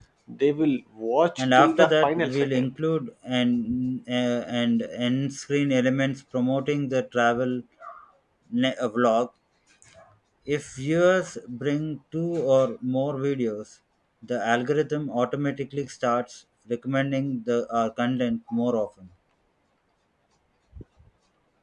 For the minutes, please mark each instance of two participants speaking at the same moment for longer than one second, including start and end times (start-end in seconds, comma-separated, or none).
1.4-2.6